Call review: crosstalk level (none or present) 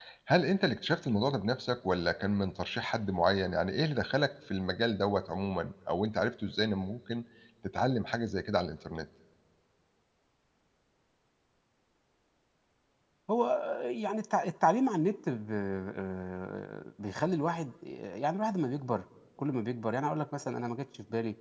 none